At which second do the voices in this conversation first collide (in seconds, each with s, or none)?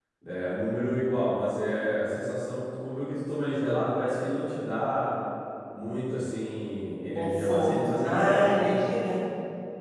7.2 s